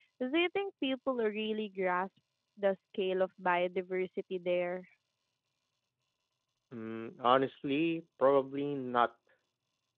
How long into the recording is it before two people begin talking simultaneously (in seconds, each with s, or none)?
none